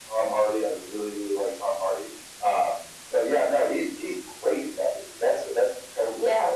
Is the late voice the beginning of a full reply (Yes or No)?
Yes